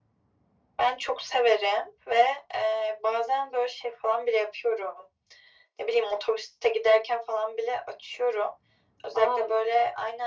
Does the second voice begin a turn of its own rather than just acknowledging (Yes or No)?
No